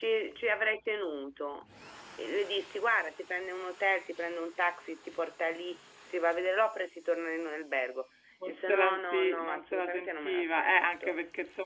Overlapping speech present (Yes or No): Yes